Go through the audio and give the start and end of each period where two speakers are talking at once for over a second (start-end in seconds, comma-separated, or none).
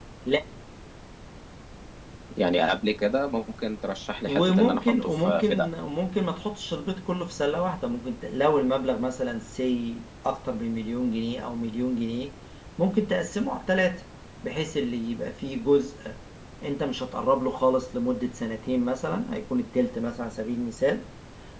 4.2-5.7